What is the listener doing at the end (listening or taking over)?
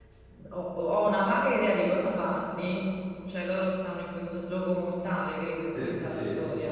taking over